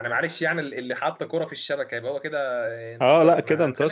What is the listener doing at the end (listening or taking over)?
taking over